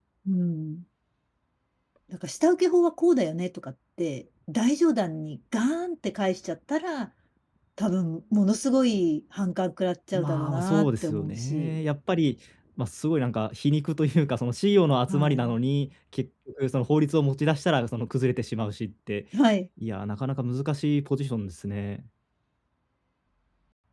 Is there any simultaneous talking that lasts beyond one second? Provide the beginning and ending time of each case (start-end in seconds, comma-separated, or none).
10.1-11.8